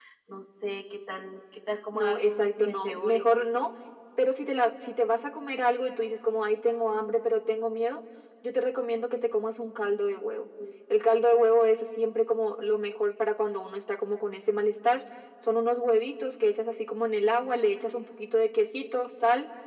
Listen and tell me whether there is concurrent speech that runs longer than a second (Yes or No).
Yes